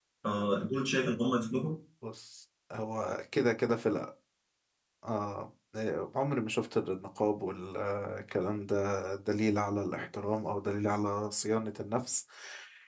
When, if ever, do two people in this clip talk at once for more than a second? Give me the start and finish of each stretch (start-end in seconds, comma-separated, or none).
none